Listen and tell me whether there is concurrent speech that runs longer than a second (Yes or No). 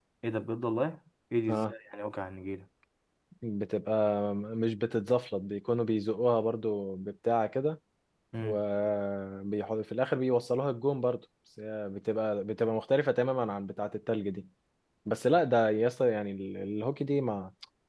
No